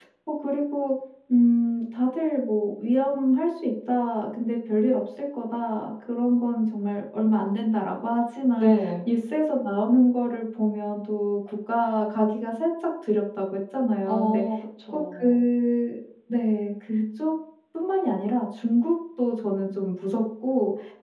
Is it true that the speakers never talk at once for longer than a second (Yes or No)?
Yes